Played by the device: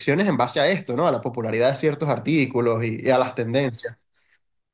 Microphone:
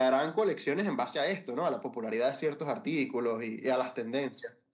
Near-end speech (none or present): none